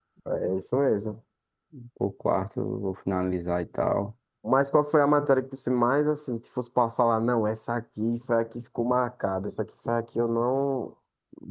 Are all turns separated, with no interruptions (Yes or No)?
Yes